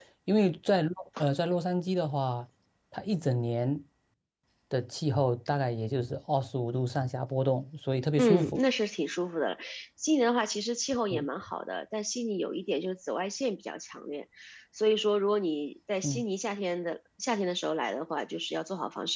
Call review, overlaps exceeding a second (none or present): none